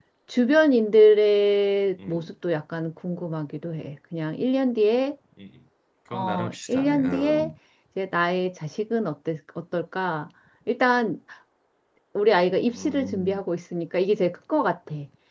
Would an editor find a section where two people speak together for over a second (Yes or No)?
Yes